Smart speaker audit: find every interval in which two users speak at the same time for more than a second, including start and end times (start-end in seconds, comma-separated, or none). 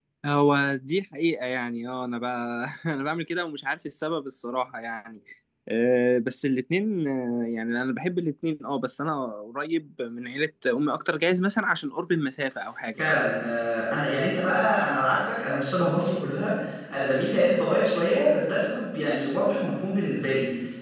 none